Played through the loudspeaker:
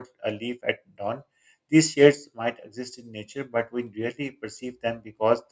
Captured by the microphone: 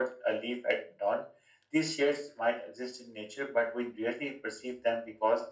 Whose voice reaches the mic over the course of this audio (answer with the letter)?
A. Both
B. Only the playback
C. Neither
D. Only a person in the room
B